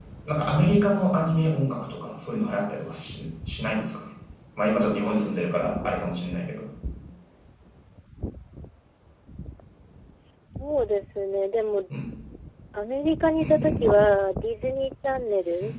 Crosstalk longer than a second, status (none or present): none